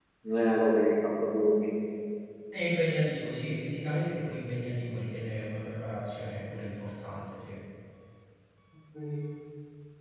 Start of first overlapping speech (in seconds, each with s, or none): none